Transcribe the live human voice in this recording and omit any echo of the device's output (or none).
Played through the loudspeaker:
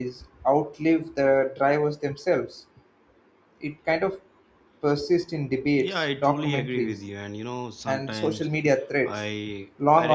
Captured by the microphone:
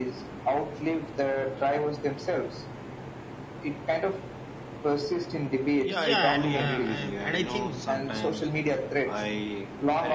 Yeah, and uh, and, and I think